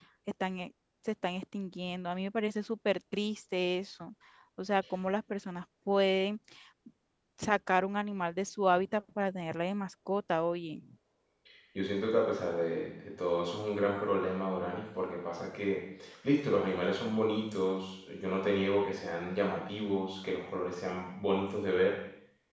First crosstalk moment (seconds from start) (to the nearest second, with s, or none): none